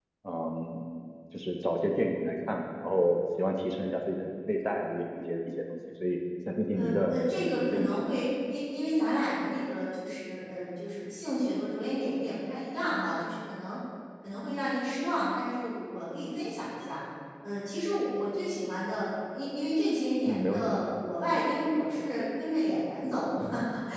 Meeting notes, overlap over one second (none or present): present